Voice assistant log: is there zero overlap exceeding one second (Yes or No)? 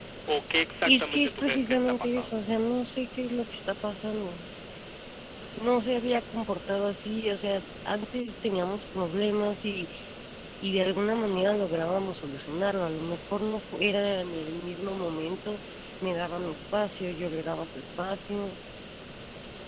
No